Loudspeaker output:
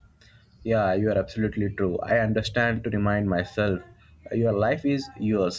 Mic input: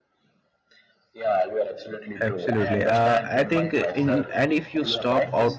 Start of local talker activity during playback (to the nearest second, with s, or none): 2 s